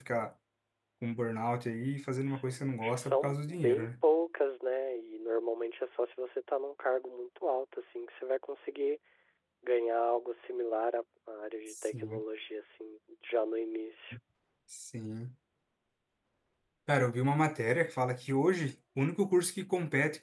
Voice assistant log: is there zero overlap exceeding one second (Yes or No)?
No